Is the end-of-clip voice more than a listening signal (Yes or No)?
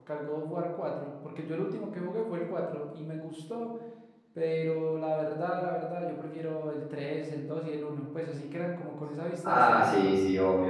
Yes